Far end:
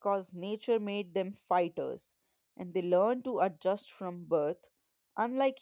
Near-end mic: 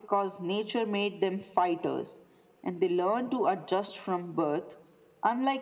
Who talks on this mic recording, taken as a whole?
echo only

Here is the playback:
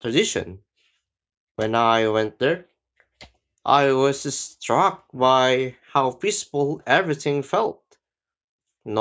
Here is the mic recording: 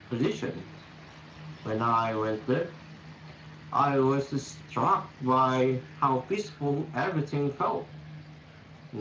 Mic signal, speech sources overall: echo only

